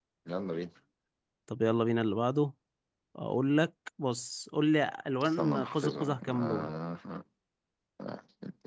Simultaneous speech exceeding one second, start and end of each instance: 5.2-6.7

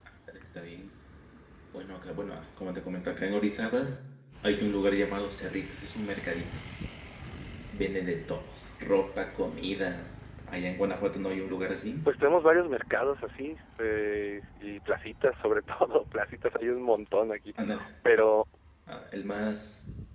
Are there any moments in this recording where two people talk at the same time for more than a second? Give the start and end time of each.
none

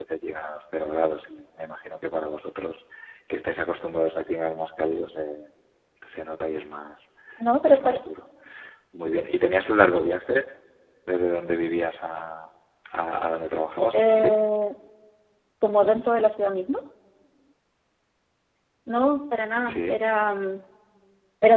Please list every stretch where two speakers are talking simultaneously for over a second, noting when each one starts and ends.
none

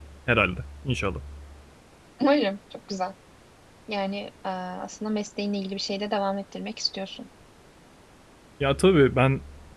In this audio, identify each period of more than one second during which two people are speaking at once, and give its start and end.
none

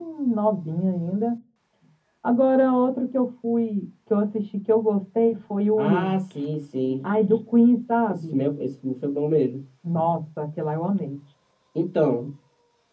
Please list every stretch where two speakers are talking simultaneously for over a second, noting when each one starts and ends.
none

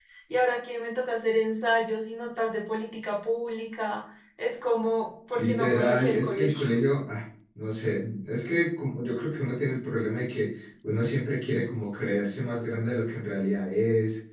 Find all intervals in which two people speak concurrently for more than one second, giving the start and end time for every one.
5.3-6.7

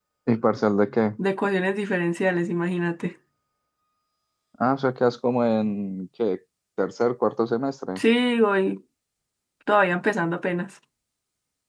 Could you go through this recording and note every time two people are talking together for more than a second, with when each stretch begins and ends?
none

